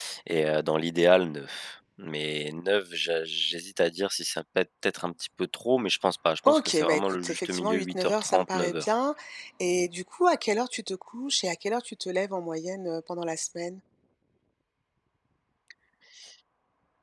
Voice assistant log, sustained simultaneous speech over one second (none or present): present